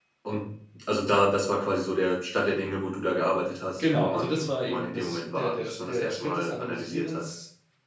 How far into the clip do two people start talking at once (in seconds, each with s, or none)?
3.8 s